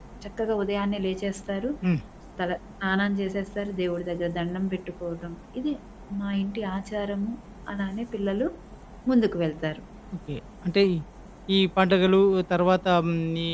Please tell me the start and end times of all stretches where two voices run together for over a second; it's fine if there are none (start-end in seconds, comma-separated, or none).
none